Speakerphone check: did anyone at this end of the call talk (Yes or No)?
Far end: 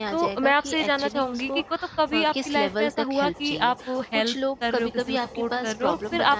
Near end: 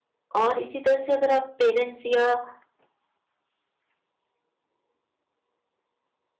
Yes